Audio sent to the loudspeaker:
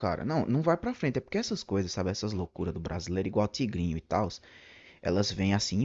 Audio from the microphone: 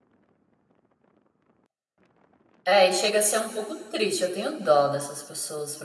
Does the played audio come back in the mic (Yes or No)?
No